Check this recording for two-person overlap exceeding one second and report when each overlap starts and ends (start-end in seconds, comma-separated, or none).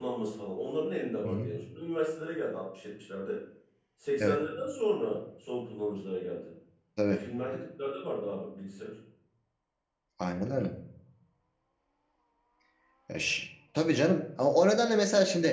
none